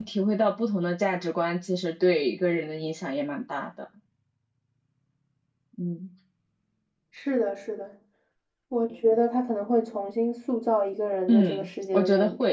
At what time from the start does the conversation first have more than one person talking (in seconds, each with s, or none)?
11.3 s